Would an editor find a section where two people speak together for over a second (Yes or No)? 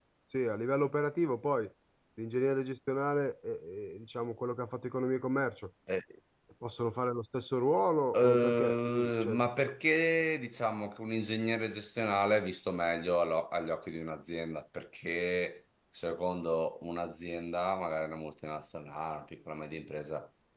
Yes